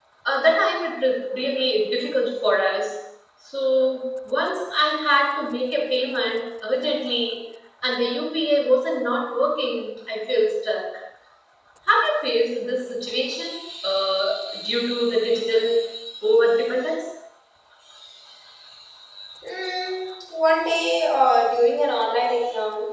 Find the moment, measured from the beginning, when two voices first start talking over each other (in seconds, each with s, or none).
none